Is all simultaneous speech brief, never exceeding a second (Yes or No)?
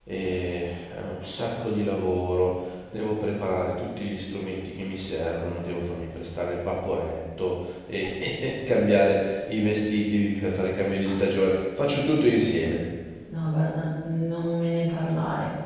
Yes